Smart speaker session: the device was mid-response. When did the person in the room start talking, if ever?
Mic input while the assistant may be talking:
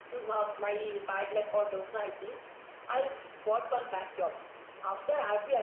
none

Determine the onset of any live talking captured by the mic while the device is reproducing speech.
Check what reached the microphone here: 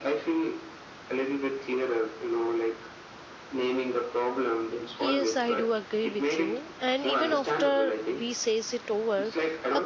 5.0 s

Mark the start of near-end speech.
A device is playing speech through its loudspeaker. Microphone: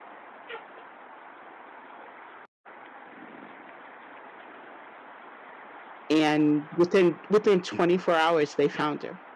6.1 s

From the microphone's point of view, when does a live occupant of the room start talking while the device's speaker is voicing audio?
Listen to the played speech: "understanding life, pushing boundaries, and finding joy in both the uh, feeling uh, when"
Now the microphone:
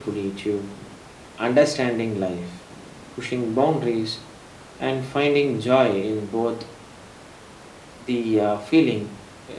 none

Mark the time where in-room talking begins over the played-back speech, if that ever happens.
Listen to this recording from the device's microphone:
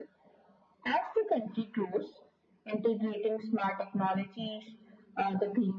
none

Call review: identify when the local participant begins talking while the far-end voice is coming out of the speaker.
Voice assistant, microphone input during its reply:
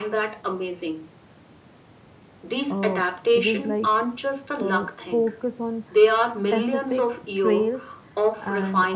2.7 s

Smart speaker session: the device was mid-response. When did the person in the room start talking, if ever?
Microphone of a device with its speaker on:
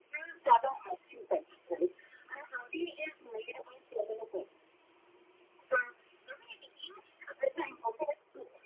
none

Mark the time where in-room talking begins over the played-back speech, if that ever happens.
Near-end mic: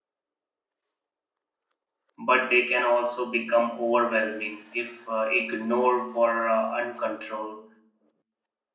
2.3 s

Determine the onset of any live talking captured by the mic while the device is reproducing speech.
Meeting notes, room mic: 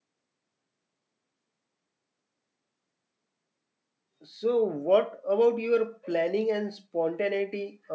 4.2 s

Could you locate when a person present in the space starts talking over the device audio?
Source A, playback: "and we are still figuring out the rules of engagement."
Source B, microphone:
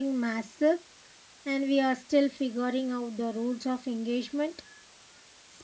none

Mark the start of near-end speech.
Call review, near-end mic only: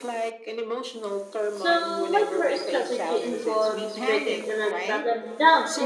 1.5 s

